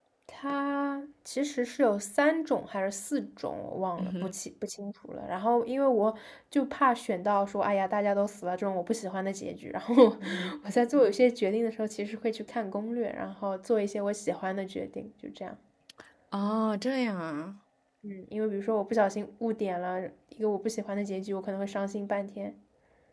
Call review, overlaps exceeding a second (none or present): none